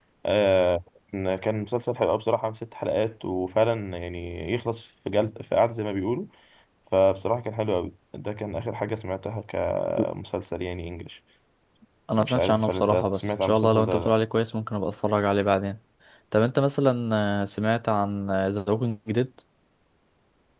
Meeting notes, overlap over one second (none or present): present